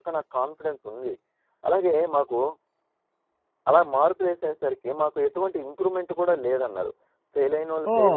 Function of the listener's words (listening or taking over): taking over